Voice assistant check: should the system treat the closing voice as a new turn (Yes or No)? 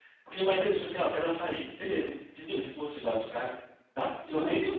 No